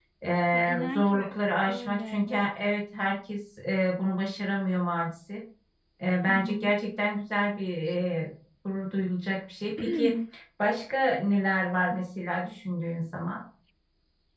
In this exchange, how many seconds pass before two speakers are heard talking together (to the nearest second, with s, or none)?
1 s